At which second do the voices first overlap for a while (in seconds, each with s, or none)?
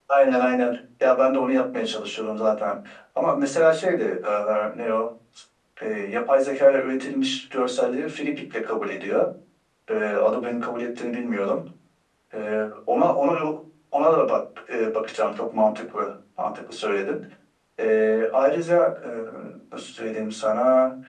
none